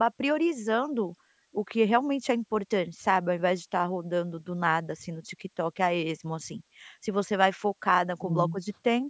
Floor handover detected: No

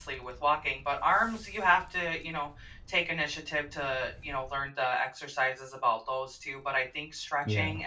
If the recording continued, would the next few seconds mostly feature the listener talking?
No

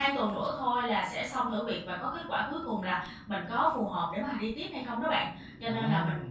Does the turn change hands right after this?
No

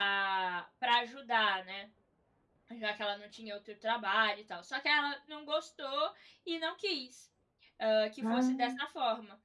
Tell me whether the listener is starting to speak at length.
No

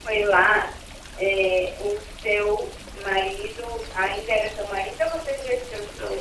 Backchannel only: No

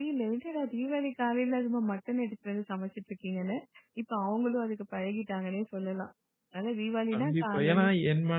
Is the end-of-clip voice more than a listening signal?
Yes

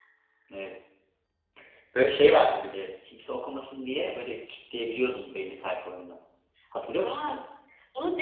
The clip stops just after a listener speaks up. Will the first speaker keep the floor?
No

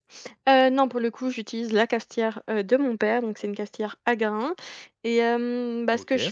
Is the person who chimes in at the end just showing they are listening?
Yes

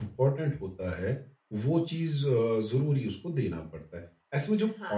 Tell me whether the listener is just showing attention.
Yes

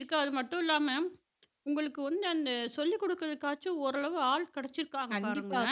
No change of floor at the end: No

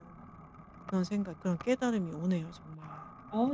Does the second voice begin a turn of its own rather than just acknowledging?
Yes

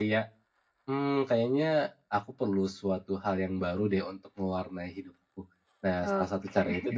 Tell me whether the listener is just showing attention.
Yes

